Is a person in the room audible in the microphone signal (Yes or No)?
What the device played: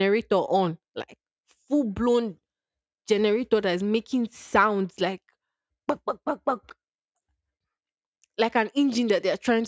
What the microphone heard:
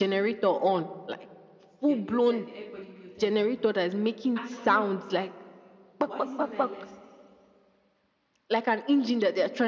Yes